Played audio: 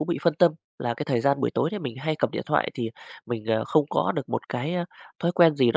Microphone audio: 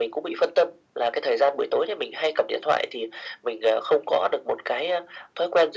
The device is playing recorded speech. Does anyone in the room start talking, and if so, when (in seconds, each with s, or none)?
none